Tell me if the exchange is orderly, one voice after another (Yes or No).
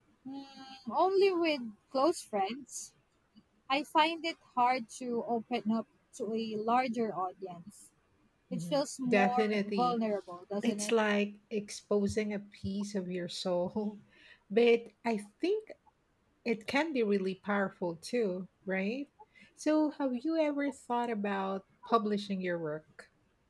No